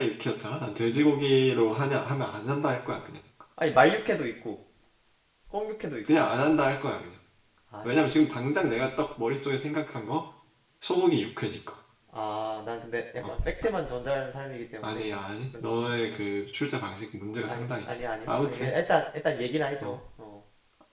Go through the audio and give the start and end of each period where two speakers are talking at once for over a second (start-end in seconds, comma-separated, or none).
17.5-18.7